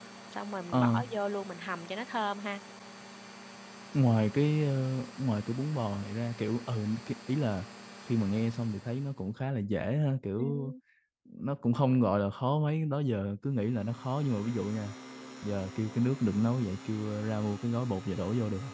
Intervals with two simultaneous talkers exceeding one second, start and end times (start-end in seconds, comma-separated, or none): none